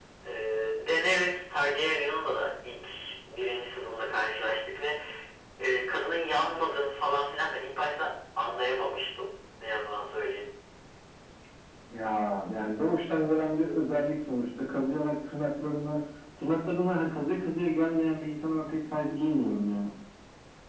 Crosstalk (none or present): none